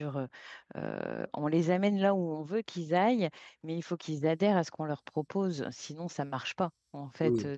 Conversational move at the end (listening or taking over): listening